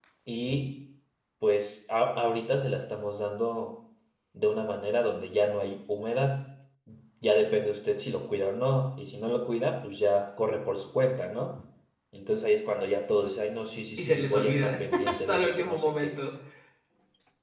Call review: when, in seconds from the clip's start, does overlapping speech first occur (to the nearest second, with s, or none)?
14 s